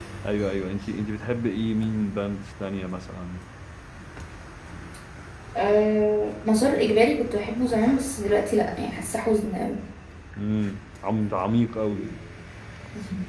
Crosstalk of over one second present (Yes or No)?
No